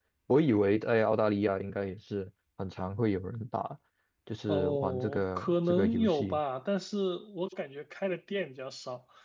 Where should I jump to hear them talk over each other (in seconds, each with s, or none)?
4.5 s